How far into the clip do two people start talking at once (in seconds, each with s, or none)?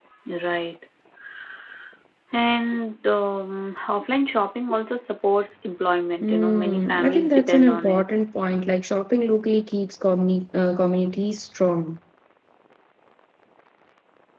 6.2 s